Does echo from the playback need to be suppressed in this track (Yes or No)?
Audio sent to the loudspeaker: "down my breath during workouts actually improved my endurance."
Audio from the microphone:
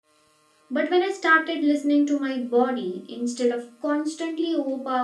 No